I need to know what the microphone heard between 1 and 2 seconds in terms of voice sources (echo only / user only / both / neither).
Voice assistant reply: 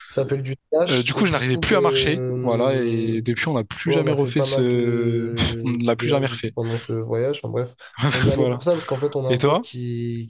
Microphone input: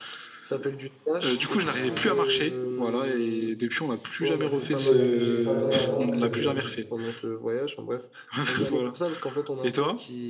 echo only